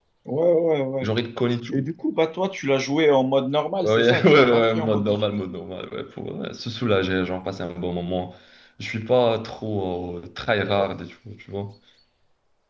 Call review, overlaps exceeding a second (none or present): present